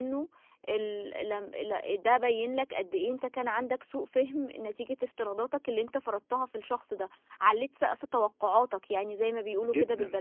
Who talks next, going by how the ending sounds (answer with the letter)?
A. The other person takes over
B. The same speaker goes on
A